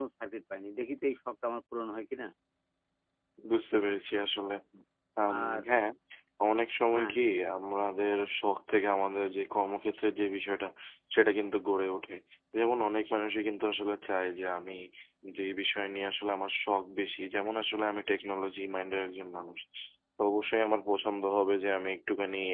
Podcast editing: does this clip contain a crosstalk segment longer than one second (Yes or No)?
No